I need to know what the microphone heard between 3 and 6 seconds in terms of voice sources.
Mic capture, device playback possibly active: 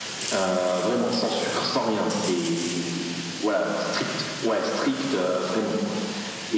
echo only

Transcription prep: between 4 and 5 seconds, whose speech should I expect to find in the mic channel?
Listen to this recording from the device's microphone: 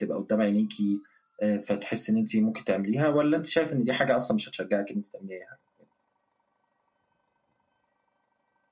echo only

